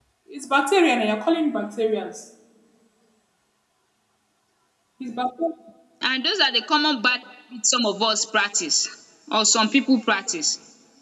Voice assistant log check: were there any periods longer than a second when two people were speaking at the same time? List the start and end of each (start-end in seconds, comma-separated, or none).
none